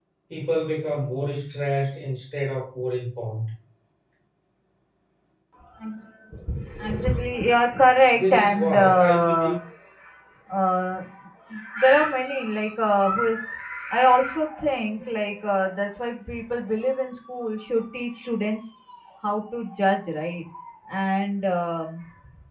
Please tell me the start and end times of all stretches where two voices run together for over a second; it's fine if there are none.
8.1-9.6

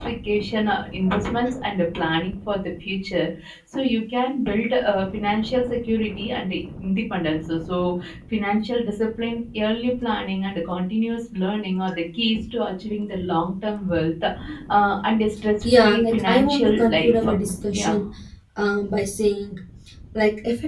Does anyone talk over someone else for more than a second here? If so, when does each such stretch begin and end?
15.6-17.2

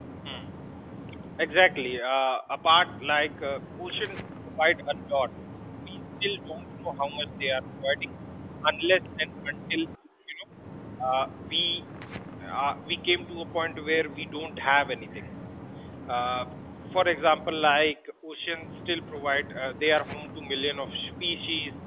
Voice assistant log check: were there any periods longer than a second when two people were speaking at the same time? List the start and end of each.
none

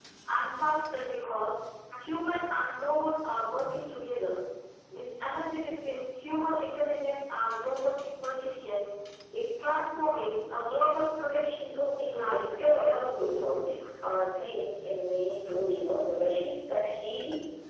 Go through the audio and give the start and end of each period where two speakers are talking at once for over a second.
12.1-13.6

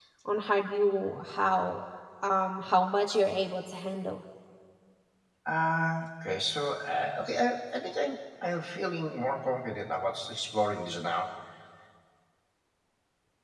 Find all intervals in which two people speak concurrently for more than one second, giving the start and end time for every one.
none

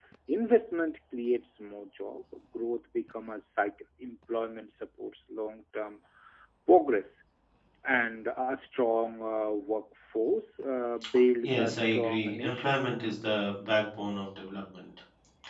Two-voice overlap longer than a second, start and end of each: 11.4-12.8

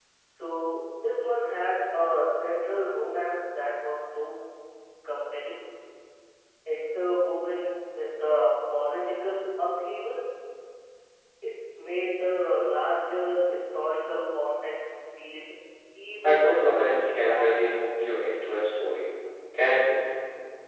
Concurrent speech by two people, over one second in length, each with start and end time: 16.2-17.7

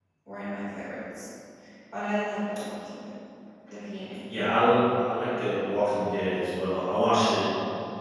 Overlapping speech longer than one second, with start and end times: none

